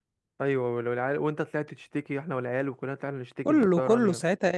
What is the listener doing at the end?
taking over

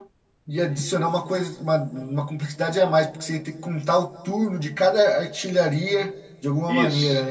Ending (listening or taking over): taking over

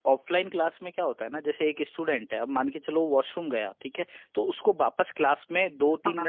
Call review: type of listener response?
listening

